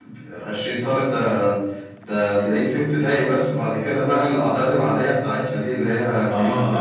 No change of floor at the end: No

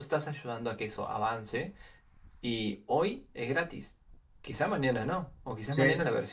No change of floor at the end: Yes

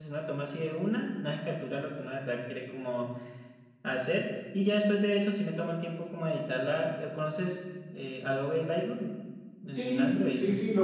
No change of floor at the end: No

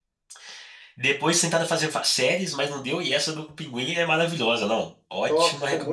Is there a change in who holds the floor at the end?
Yes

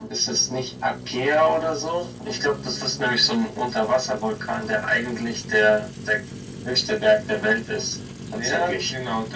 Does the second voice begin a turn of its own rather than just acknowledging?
Yes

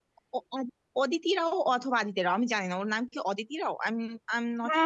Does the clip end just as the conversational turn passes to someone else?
Yes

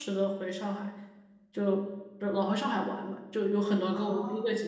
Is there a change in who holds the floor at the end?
No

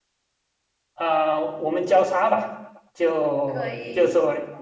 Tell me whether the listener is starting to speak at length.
No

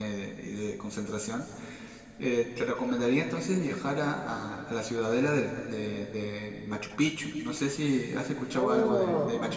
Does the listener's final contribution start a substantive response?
Yes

